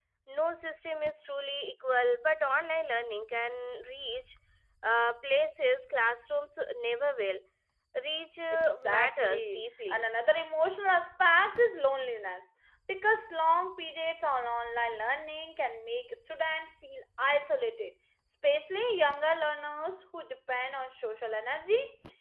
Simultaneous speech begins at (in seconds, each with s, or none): 8.5 s